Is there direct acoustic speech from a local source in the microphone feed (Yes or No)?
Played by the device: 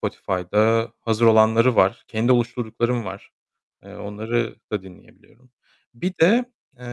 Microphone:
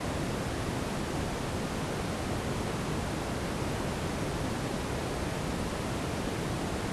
No